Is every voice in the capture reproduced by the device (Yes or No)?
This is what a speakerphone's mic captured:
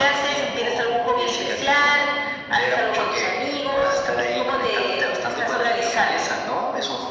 Yes